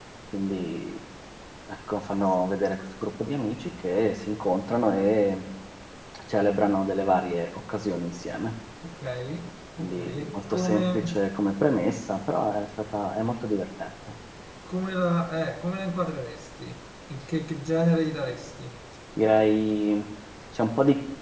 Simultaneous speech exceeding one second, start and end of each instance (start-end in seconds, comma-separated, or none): 9.8-11.0